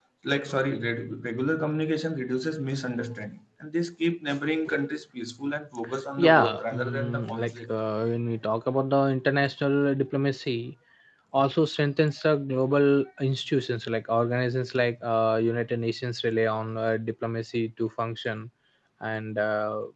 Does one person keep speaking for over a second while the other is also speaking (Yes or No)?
Yes